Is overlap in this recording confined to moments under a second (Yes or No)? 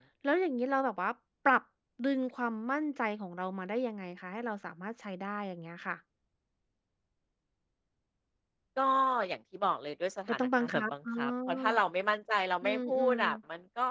No